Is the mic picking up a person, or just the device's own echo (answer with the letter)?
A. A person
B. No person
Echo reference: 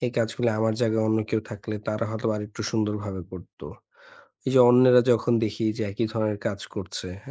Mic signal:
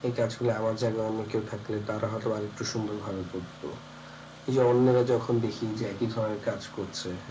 B